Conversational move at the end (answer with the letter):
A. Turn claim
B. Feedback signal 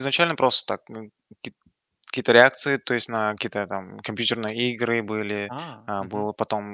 B